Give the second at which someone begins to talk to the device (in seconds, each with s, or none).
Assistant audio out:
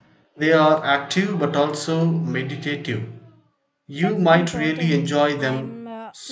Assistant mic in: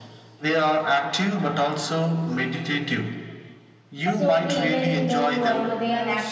4.0 s